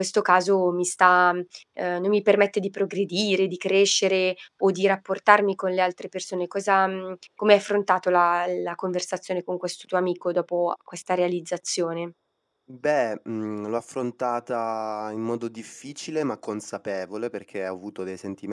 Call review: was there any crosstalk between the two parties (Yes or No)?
No